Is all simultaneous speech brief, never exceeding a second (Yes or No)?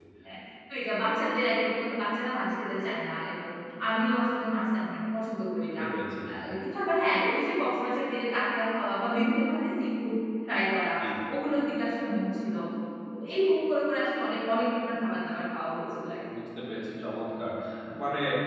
Yes